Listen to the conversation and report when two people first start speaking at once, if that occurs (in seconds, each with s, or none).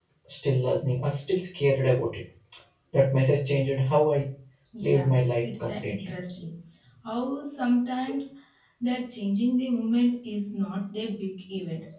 4.8 s